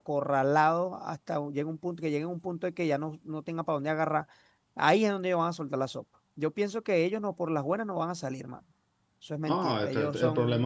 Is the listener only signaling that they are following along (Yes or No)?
No